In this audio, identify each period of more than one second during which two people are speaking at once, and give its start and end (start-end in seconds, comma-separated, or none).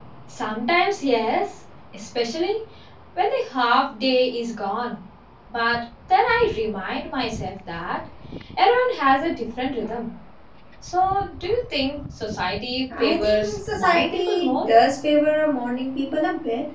13.0-14.7